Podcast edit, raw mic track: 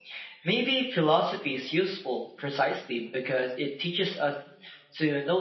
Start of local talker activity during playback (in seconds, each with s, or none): none